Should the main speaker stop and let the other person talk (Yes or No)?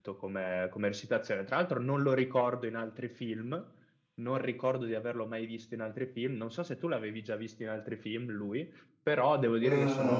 No